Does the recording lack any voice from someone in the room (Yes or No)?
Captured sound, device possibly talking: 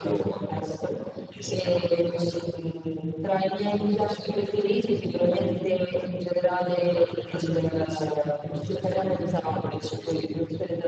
Yes